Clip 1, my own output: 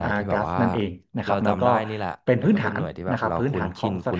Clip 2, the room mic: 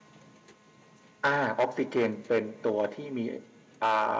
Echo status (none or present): none